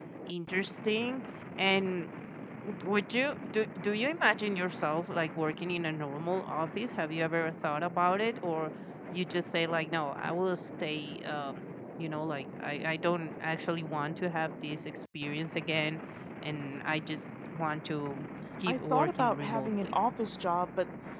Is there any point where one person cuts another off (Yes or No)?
Yes